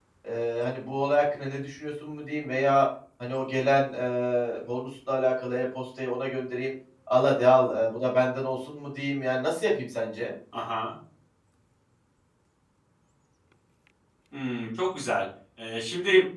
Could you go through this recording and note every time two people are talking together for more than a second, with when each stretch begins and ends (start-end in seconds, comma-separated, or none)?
none